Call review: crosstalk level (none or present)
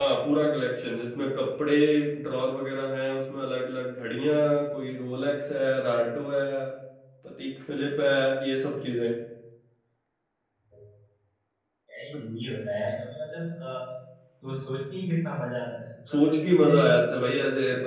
present